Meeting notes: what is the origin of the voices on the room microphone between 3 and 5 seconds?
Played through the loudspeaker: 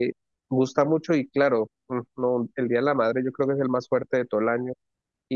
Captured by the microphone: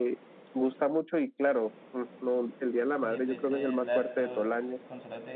both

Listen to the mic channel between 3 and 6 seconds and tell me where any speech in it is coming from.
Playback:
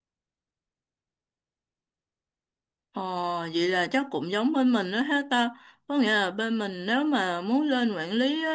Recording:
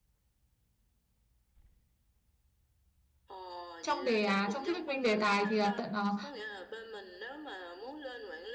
both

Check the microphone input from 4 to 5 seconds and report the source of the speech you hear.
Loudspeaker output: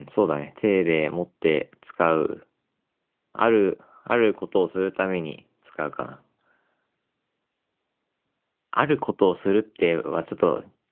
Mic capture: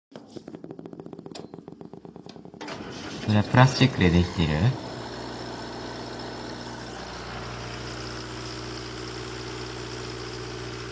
user only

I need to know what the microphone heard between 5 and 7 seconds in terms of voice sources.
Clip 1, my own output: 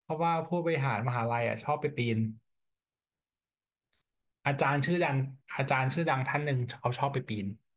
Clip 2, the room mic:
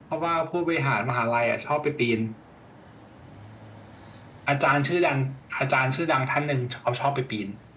echo only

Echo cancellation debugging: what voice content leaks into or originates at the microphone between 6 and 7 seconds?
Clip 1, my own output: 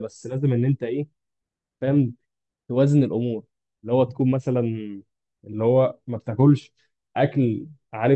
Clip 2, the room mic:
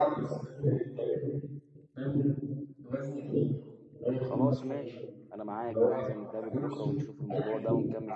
both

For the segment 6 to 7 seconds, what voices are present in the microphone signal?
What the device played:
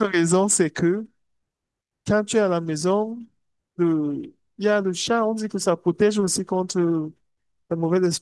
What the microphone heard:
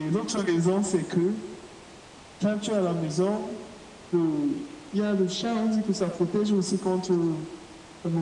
echo only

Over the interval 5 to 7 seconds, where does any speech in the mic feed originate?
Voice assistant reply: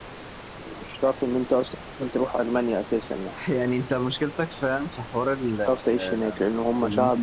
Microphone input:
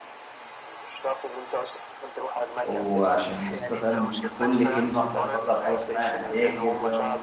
both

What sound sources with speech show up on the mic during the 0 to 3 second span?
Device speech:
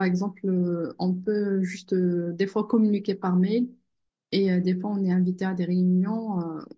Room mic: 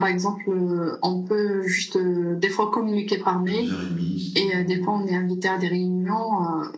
echo only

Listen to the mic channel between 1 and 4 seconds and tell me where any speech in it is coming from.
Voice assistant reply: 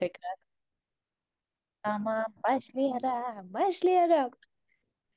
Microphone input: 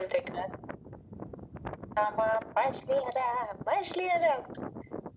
echo only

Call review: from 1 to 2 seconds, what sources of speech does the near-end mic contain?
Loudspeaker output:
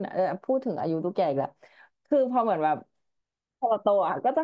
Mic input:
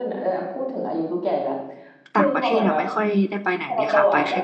echo only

